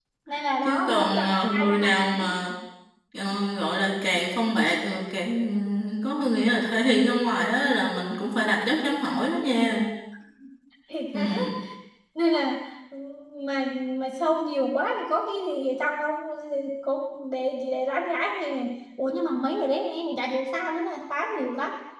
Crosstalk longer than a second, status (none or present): present